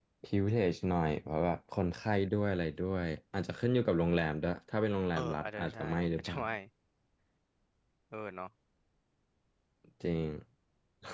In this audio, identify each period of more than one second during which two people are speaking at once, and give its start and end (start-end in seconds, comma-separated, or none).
5.1-6.4